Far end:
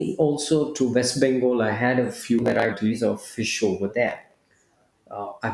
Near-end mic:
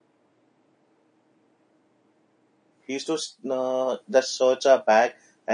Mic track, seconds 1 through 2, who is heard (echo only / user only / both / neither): neither